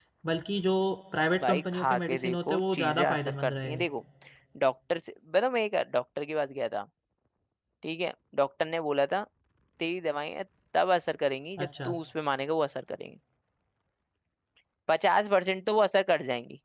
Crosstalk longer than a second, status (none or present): present